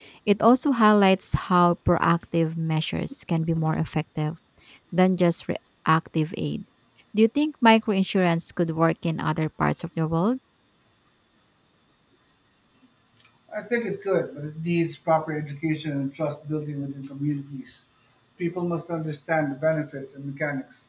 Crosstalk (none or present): none